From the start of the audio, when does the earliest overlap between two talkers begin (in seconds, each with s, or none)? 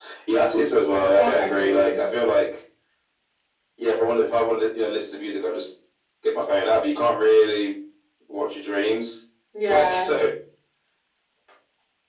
1.0 s